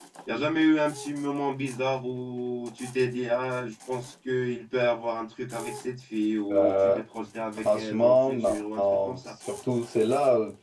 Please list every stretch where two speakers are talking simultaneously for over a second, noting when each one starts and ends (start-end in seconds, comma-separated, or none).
7.6-9.3